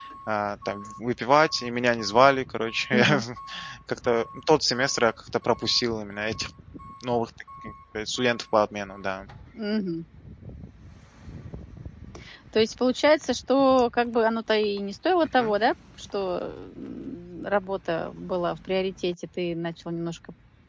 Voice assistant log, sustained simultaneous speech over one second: none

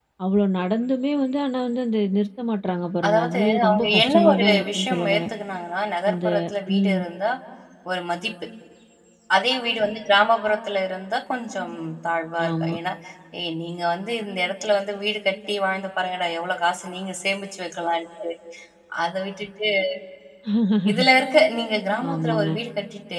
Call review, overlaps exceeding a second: present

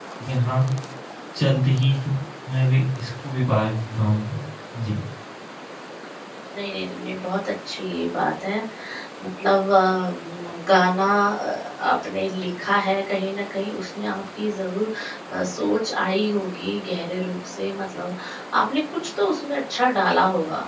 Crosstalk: none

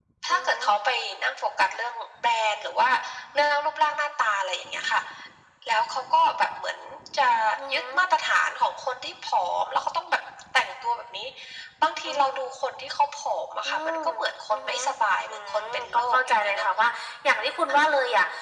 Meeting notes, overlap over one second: present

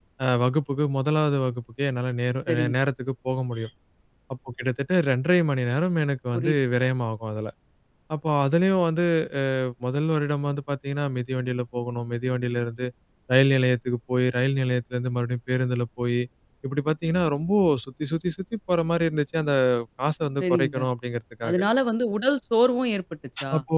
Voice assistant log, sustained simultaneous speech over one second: none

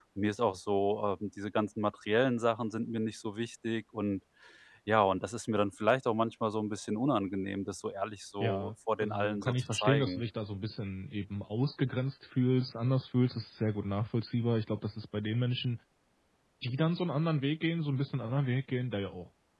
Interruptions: present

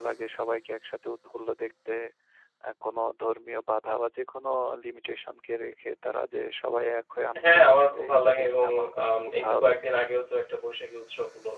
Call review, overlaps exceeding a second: present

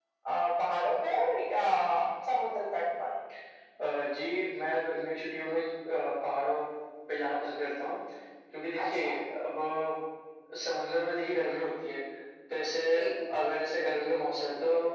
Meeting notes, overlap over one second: none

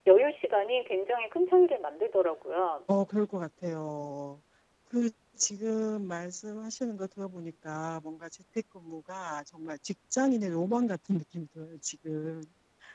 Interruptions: none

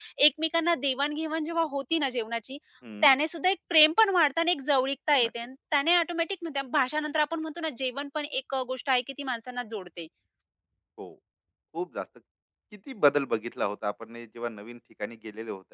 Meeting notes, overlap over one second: none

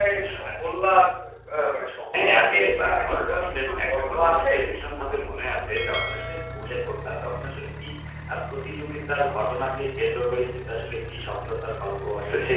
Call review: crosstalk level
present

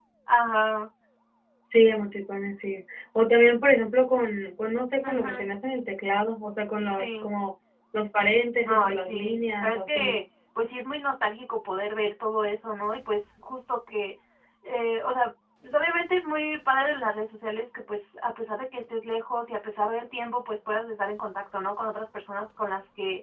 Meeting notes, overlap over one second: present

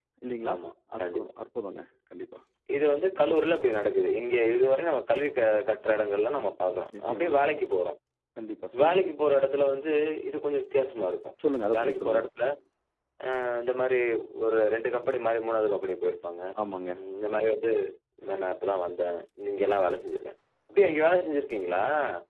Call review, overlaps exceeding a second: none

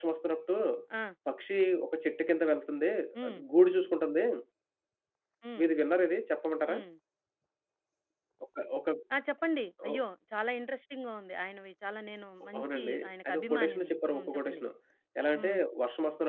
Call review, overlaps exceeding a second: present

